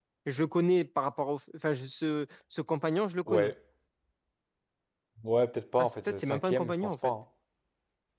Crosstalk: present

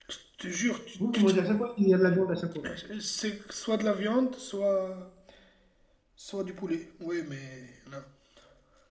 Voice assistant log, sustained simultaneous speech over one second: none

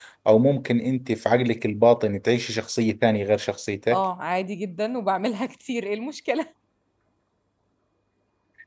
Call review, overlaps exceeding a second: none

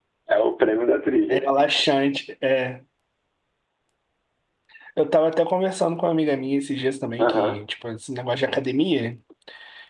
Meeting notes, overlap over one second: none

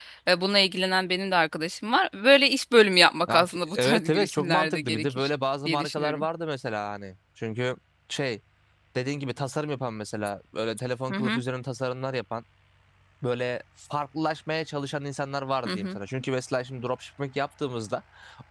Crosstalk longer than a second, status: present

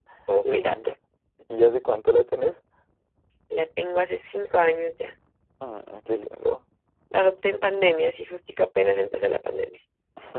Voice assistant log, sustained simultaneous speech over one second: none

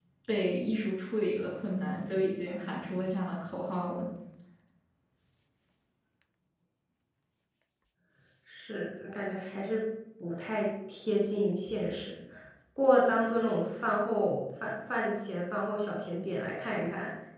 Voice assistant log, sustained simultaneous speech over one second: none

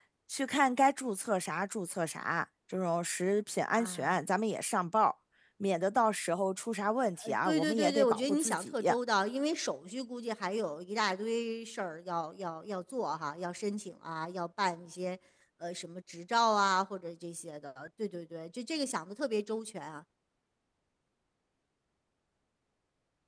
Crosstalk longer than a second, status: present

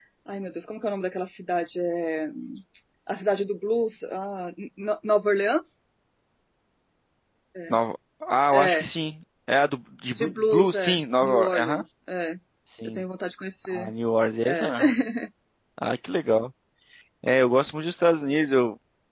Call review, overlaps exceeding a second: present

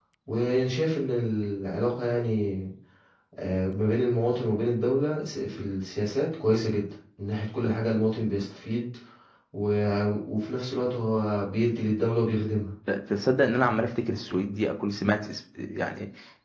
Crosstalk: none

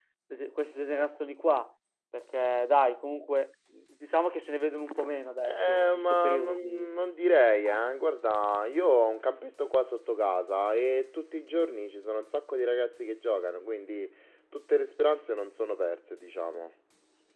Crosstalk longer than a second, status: present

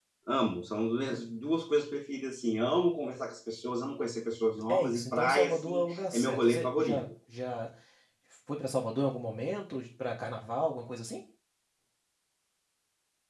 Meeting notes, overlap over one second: present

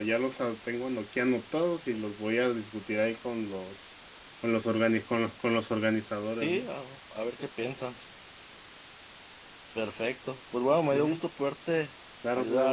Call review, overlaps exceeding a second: none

